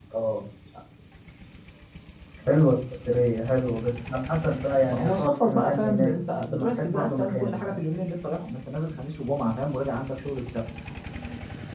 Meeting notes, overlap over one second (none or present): present